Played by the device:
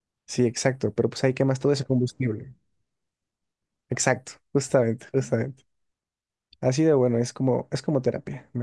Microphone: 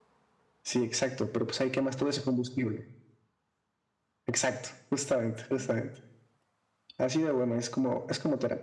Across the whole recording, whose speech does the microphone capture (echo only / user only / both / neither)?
echo only